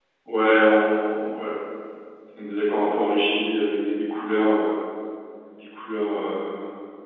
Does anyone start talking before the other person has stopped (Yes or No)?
No